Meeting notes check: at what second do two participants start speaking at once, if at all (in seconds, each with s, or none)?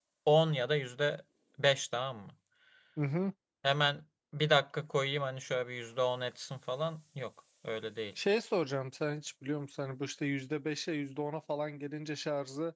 none